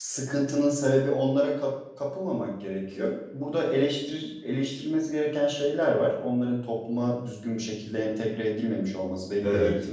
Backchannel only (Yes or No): Yes